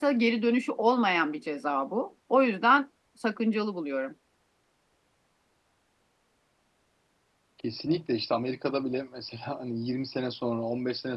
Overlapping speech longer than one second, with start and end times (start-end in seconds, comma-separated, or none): none